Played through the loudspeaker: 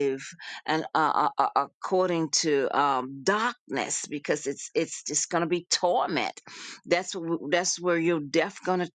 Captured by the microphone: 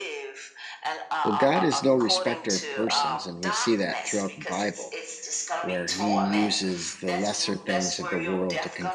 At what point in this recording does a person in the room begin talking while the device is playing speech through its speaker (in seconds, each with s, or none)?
1.2 s